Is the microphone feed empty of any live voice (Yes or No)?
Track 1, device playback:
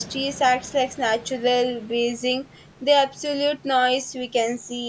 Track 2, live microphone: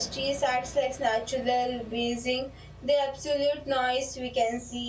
Yes